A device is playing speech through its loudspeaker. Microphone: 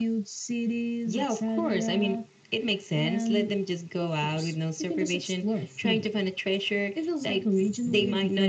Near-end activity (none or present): none